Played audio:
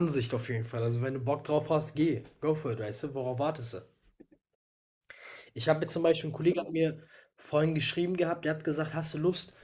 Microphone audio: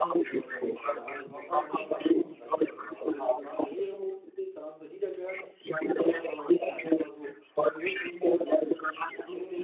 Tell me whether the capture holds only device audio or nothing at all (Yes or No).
No